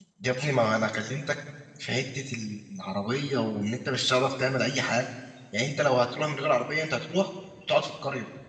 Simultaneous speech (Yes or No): No